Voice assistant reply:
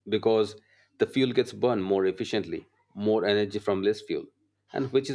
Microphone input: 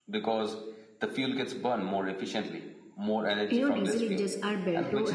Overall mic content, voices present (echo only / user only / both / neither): both